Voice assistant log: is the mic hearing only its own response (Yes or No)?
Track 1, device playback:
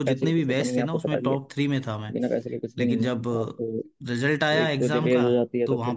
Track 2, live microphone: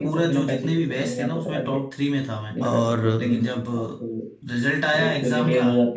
No